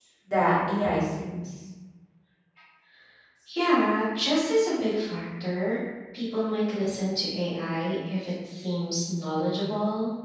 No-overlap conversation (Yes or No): Yes